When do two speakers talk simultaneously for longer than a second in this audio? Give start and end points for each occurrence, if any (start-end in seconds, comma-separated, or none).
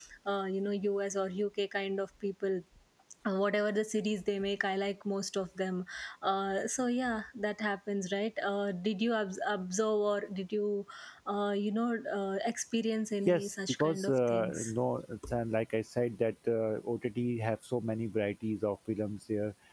13.3-14.7